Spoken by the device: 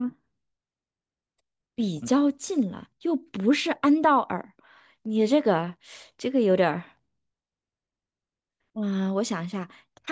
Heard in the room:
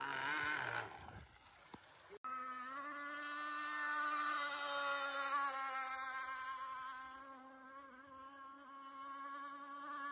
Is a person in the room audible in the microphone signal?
No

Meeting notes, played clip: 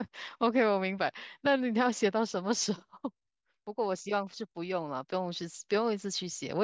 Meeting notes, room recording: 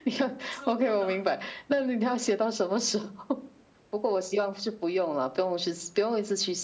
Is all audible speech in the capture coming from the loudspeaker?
No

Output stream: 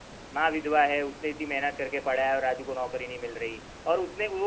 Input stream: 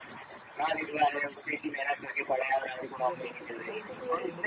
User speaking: Yes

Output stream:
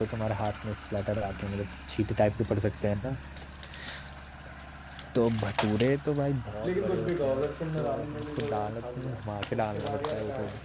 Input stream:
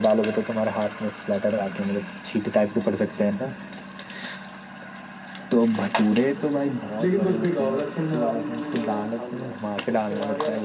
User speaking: No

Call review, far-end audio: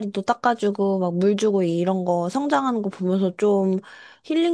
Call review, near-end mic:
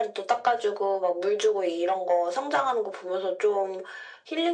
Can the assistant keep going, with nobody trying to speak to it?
Yes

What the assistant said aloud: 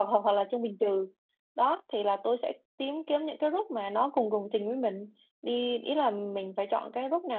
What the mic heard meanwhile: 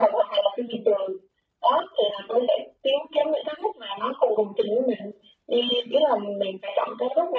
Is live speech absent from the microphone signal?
Yes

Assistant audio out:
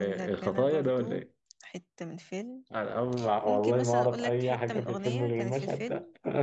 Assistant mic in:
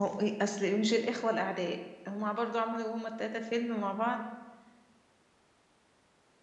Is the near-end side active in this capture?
Yes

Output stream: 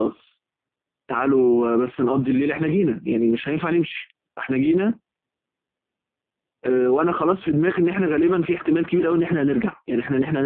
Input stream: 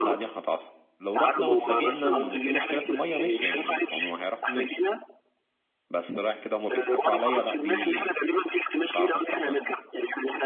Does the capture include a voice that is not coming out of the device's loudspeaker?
Yes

